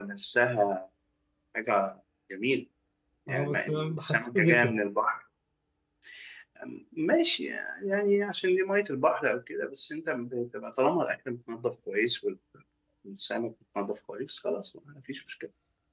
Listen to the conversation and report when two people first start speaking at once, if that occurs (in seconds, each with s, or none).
3.3 s